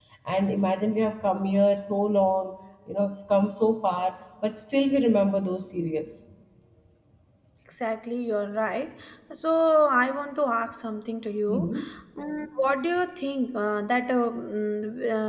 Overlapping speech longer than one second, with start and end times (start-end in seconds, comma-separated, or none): none